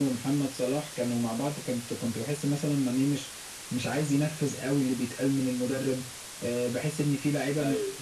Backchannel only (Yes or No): Yes